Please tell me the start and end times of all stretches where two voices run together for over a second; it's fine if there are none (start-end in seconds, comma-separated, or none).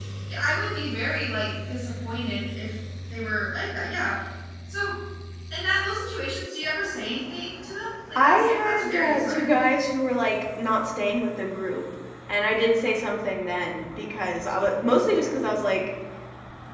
8.2-9.6